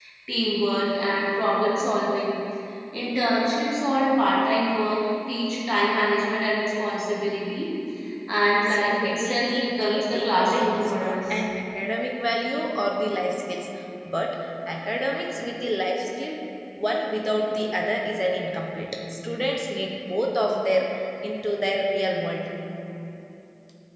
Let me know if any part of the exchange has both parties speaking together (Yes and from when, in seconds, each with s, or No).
Yes, from 8.7 s